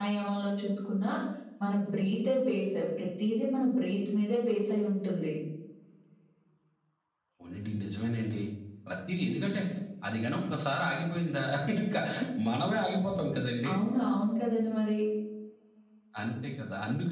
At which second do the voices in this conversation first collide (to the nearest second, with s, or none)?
none